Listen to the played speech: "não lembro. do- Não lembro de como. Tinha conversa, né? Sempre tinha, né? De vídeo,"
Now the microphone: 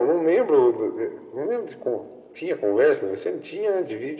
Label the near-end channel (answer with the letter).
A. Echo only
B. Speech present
A